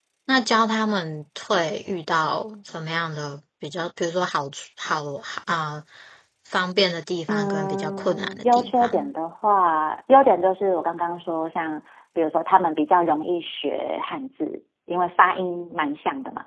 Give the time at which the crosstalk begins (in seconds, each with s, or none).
7.3 s